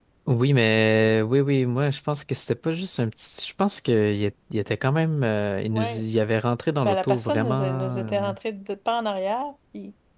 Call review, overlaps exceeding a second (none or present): present